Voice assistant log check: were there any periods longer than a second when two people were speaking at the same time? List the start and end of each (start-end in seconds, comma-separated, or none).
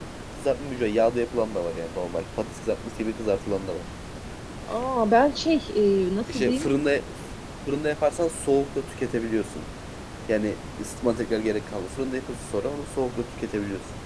none